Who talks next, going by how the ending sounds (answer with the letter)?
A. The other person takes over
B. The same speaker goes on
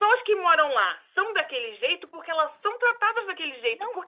B